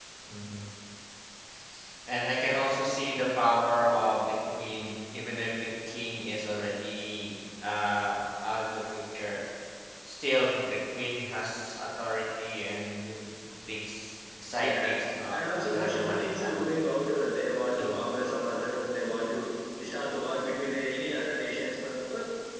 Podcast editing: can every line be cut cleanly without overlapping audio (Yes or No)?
No